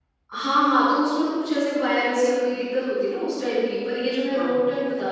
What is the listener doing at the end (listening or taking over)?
listening